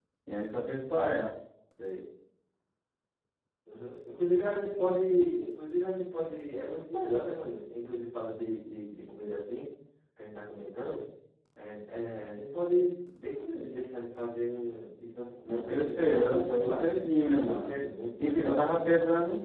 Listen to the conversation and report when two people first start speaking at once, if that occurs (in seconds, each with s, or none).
15.5 s